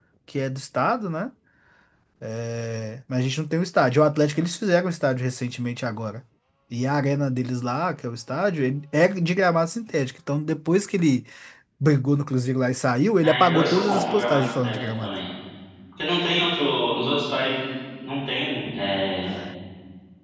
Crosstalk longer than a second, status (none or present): present